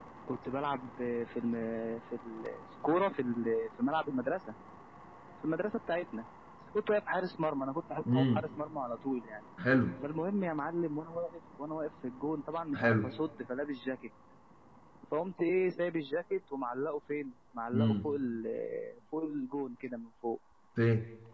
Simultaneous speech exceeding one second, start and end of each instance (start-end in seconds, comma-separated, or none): none